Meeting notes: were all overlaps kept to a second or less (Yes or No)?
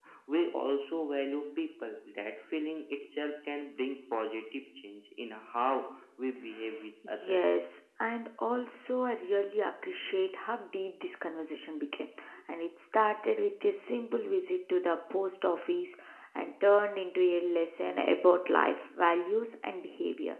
Yes